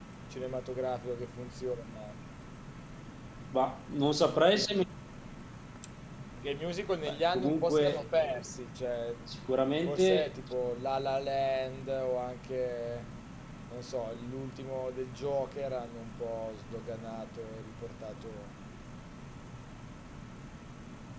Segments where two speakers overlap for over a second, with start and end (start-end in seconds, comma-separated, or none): 7.0-8.4